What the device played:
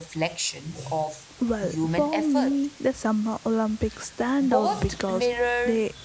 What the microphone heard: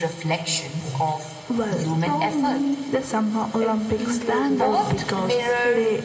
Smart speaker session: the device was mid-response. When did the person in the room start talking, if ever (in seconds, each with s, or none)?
3.6 s